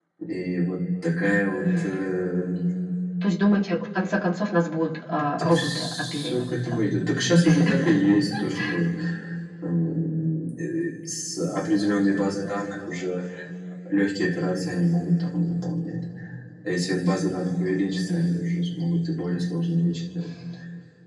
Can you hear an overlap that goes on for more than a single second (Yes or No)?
Yes